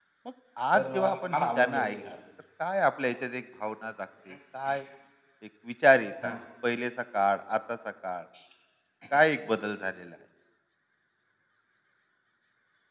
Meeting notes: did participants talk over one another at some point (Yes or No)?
Yes